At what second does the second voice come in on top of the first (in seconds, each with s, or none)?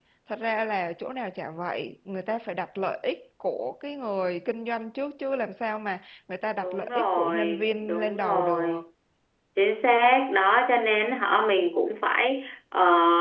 6.6 s